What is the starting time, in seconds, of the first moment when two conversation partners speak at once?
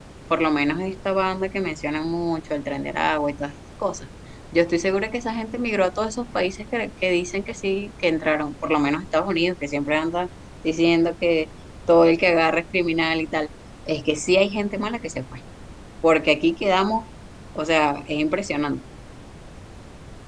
none

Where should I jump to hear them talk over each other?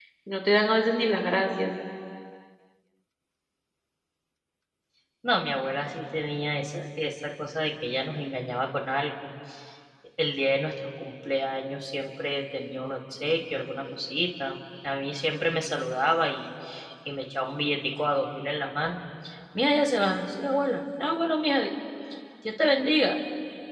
none

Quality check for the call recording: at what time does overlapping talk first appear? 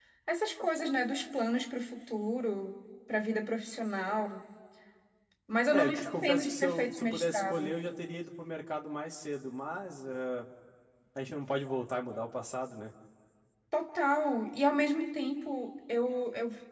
5.7 s

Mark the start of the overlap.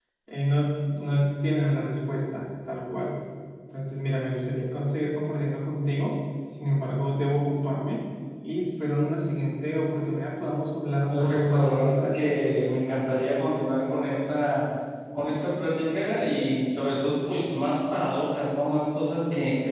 11.1 s

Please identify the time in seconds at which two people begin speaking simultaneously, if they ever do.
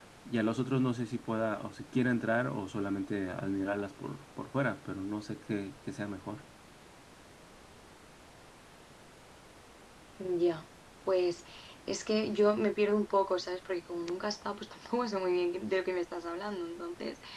none

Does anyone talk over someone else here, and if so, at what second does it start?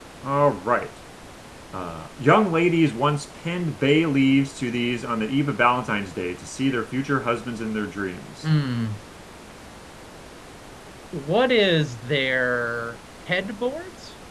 none

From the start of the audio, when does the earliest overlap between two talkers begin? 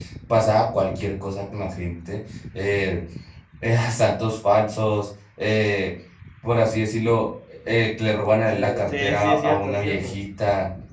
8.5 s

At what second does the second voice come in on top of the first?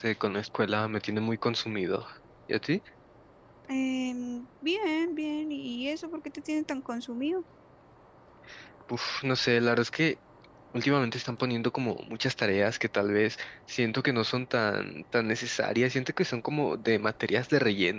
none

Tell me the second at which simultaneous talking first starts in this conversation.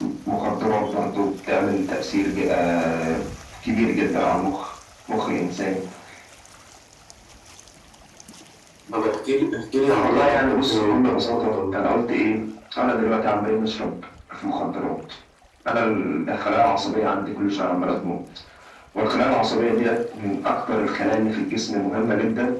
10.0 s

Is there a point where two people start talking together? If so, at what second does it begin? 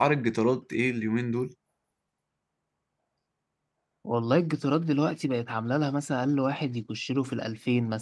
none

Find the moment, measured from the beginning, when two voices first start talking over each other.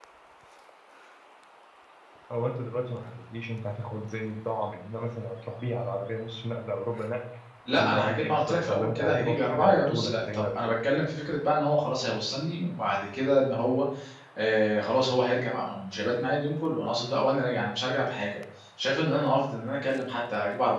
7.7 s

